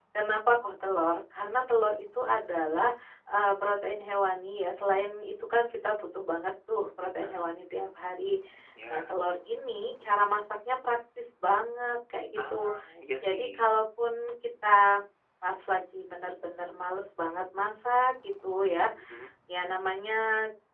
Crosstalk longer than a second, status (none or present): none